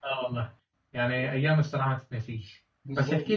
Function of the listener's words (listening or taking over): listening